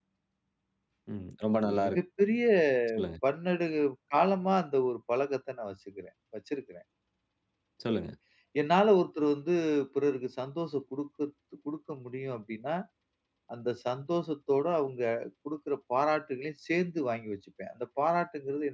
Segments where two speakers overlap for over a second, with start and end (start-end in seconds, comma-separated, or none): none